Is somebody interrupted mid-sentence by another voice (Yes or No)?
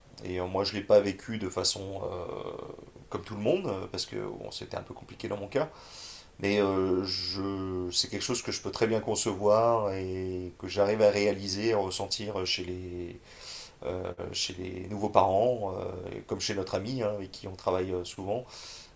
No